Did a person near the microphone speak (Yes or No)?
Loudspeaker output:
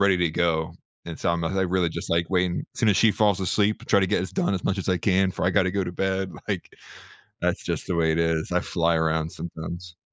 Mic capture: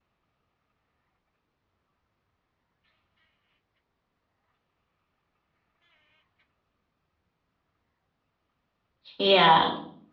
Yes